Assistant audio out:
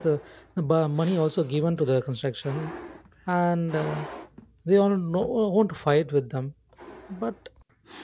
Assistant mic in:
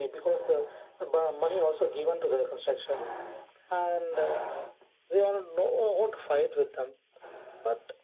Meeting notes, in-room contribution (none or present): none